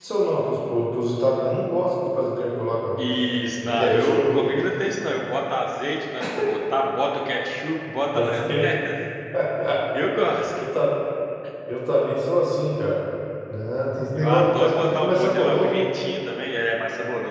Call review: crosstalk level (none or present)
present